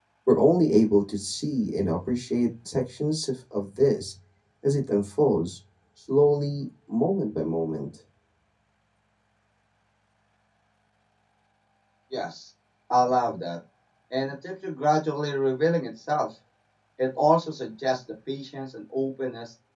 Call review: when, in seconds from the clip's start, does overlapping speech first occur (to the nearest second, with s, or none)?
none